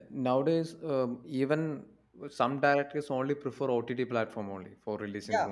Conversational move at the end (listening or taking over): taking over